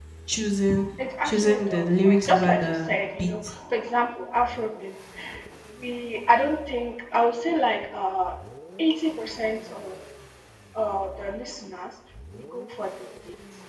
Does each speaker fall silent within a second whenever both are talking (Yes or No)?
No